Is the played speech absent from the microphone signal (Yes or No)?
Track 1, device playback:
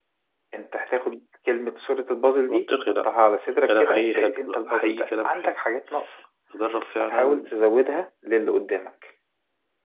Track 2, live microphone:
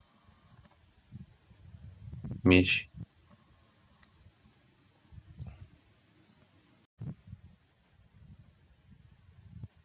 Yes